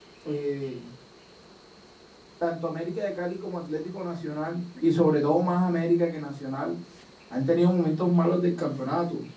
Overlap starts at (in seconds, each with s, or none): none